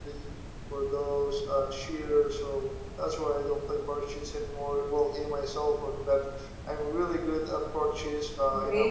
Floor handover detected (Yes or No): Yes